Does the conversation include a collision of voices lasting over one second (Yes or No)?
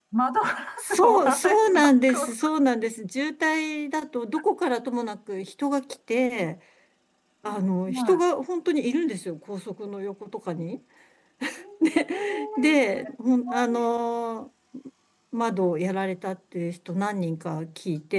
Yes